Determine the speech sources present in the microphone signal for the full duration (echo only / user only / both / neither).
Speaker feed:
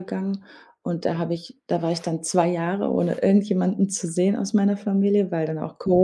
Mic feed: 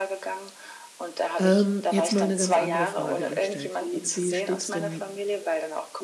both